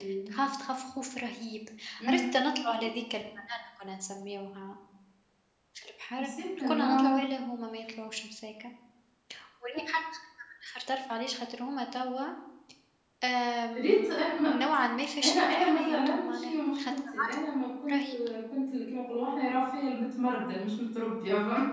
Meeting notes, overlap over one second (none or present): present